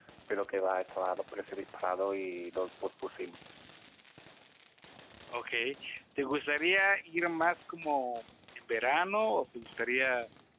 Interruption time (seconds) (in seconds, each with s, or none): none